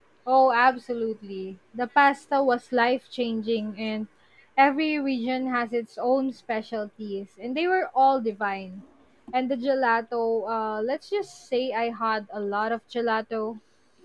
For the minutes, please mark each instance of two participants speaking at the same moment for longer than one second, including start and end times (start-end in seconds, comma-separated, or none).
none